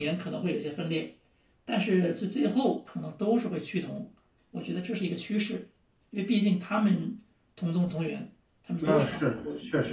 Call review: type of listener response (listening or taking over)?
taking over